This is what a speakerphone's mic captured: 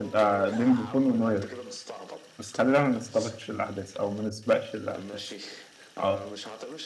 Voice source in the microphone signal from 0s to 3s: both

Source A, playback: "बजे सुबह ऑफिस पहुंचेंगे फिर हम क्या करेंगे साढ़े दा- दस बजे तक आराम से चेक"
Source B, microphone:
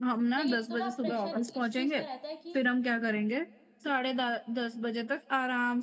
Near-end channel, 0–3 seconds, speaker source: both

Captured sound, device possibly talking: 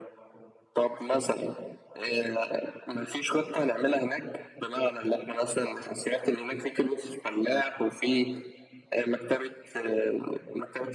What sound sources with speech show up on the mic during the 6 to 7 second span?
echo only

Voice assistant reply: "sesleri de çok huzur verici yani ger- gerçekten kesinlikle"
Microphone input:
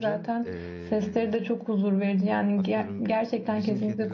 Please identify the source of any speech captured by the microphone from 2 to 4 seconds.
both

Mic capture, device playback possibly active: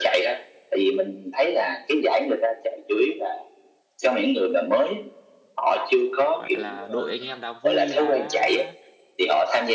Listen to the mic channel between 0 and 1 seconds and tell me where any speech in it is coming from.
echo only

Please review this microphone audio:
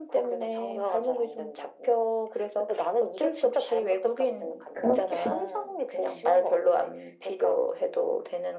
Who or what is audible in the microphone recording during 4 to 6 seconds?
both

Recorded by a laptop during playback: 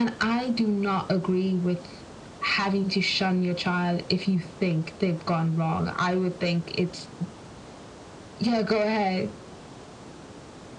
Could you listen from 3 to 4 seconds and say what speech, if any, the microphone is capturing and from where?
echo only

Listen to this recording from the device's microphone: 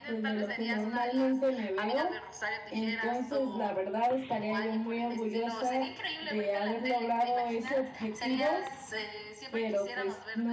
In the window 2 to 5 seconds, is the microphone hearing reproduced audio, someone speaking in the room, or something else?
both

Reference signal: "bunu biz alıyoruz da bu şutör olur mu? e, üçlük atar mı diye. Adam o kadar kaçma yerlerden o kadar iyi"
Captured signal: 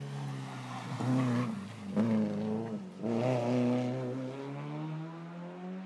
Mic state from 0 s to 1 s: neither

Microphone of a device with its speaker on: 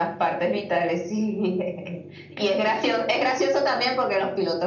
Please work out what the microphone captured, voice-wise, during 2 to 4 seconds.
echo only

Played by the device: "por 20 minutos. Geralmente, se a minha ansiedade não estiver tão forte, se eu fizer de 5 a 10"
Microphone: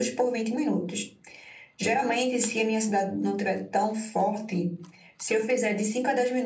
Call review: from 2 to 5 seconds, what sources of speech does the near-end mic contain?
echo only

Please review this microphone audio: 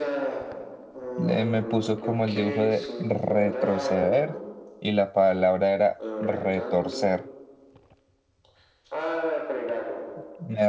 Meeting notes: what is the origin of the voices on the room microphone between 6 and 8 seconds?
both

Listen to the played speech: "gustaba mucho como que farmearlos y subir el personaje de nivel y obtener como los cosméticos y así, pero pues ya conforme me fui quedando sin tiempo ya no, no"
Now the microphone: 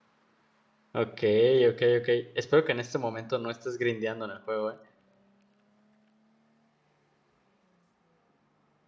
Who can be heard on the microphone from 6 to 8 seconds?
neither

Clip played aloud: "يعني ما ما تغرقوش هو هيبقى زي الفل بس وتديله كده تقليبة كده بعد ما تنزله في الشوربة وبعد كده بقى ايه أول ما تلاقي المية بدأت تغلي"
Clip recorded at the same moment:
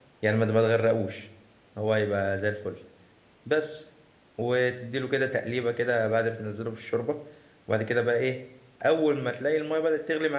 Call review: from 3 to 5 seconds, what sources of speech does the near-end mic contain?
echo only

